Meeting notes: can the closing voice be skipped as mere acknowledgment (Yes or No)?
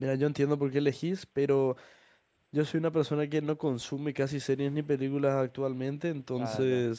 Yes